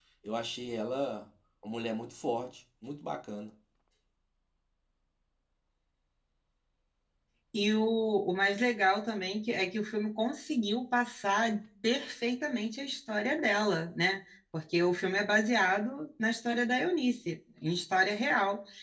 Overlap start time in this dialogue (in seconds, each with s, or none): none